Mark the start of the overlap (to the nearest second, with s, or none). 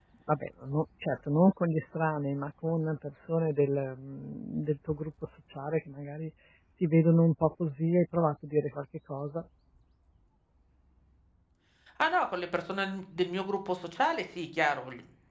none